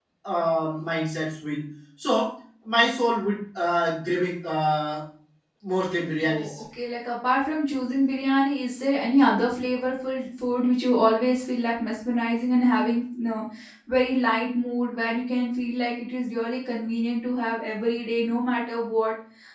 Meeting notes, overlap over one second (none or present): none